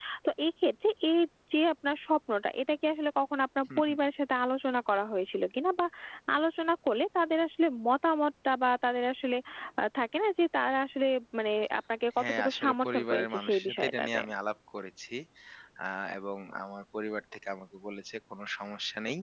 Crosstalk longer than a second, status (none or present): present